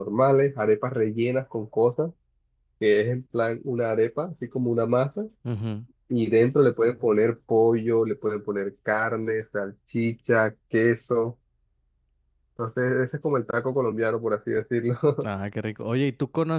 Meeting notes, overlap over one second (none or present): none